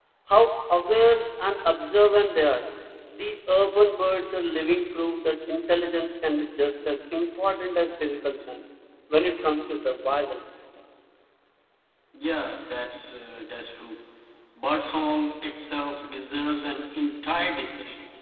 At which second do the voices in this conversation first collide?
none

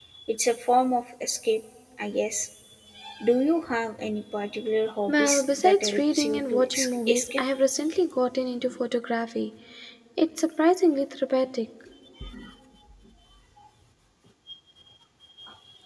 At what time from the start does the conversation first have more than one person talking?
5.1 s

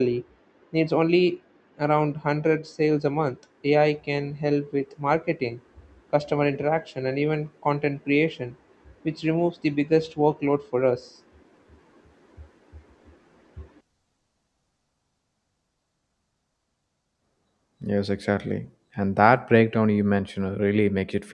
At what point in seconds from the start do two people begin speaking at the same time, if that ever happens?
none

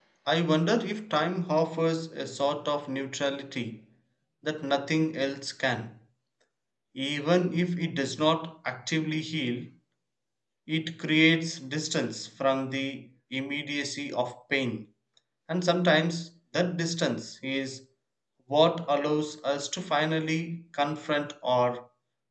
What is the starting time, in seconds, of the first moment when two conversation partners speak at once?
none

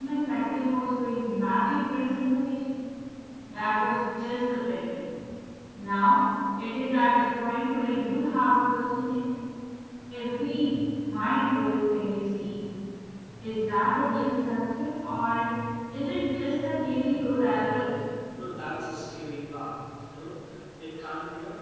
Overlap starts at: none

